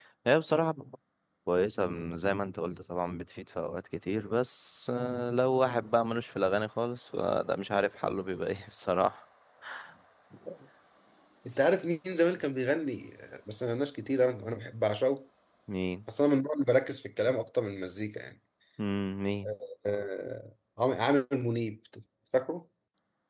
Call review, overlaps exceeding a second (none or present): none